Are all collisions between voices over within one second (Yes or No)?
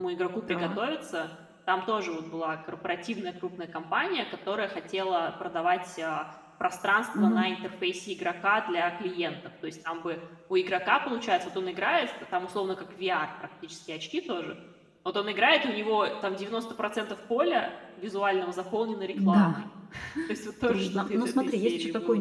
No